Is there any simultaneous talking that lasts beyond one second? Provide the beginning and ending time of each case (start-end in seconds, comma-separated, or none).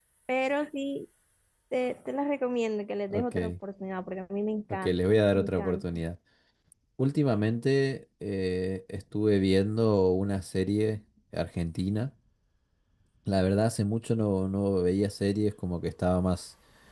4.7-6.0